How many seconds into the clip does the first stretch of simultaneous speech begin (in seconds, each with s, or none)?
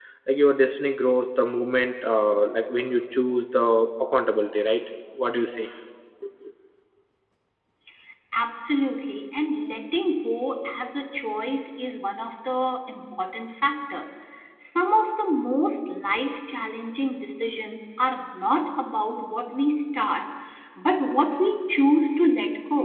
none